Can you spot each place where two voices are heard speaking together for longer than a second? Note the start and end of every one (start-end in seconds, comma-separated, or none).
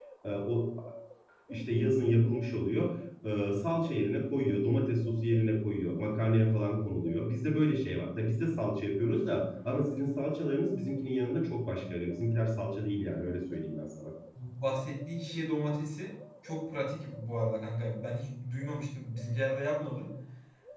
none